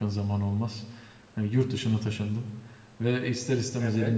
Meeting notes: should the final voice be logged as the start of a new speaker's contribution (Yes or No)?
No